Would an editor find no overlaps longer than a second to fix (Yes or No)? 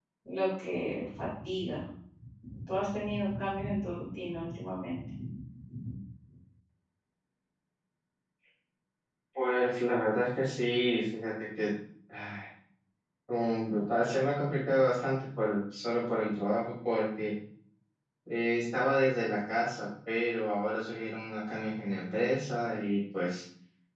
Yes